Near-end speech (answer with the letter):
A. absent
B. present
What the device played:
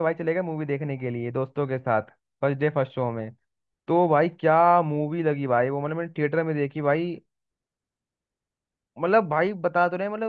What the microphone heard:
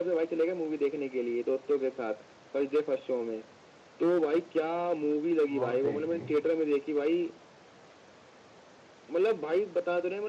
B